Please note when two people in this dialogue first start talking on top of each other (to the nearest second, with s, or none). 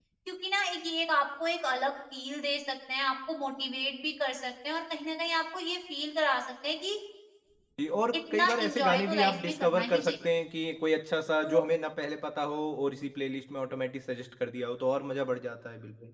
8 s